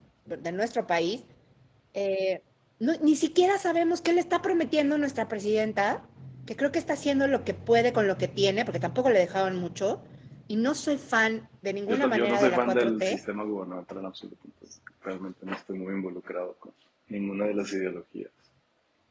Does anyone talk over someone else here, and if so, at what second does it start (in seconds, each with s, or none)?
11.9 s